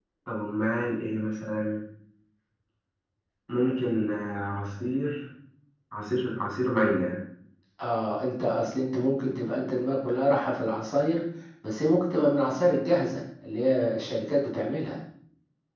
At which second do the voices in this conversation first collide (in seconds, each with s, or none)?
none